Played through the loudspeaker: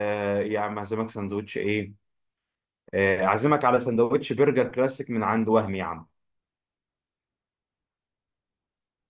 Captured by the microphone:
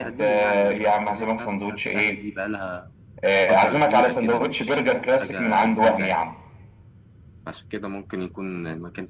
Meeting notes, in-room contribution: present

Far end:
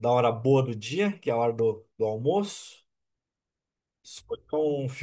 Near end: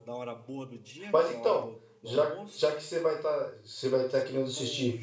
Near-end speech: present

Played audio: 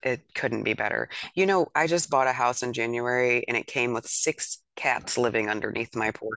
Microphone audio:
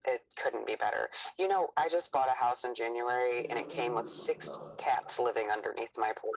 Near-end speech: present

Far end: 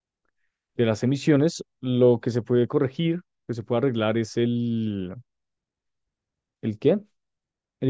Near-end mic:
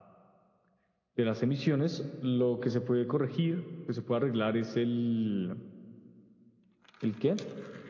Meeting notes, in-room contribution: none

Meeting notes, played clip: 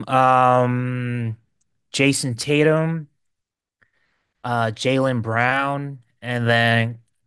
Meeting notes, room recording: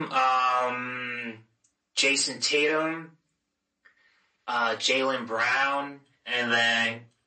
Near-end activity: none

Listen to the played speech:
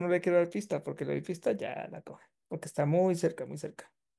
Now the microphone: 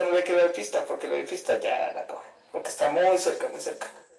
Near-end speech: none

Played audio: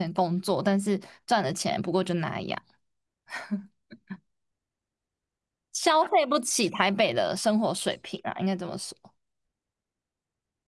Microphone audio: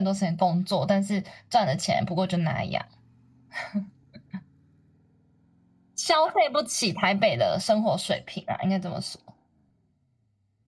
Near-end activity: none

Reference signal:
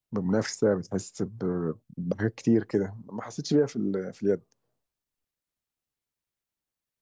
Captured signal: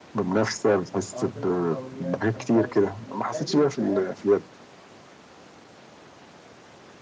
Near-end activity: present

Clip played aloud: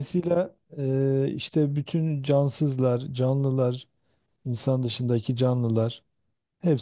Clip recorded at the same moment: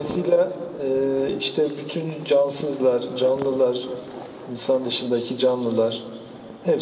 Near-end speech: none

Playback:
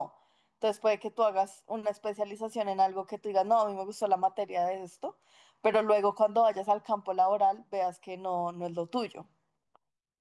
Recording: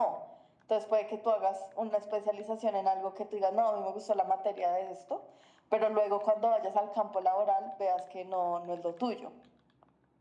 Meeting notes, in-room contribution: none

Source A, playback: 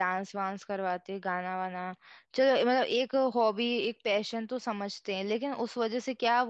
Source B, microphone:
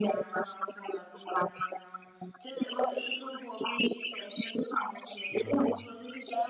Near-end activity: present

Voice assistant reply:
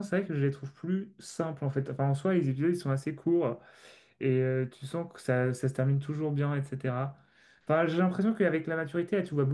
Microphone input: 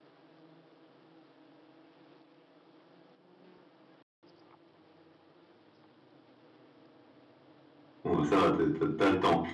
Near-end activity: present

